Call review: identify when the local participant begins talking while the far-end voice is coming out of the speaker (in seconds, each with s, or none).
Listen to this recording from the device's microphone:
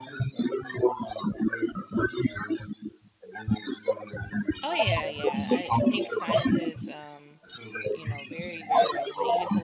4.6 s